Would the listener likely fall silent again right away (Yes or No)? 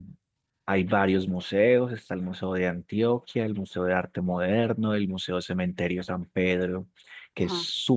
Yes